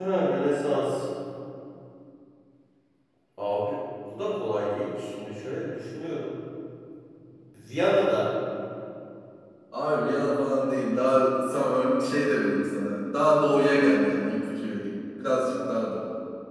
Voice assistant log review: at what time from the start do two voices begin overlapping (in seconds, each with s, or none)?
none